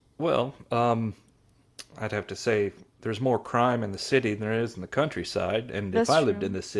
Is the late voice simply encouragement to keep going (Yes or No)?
Yes